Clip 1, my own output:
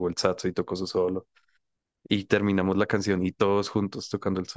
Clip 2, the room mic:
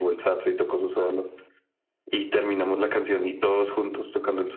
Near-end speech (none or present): none